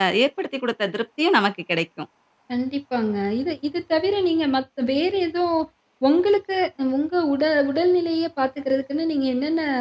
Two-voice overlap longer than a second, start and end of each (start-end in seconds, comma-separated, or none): none